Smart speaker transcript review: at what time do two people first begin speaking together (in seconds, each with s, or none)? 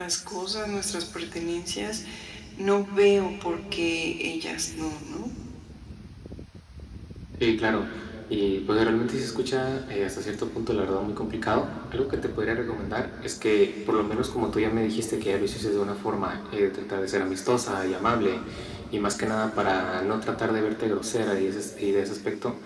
none